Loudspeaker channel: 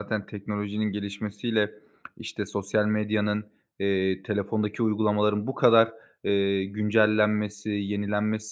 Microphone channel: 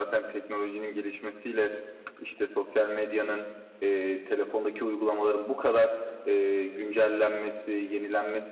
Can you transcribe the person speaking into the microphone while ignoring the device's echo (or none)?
none